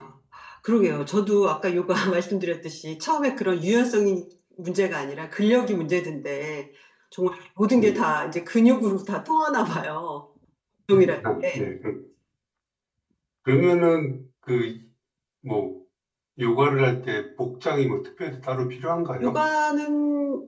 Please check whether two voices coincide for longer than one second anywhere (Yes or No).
No